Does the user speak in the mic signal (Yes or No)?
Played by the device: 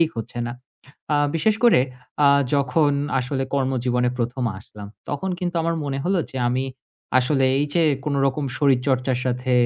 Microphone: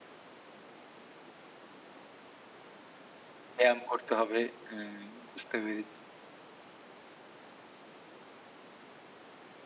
Yes